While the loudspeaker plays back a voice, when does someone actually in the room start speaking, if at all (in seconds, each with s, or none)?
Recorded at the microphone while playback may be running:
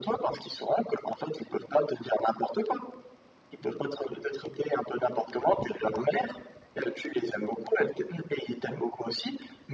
none